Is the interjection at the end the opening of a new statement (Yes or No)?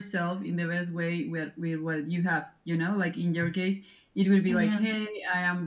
No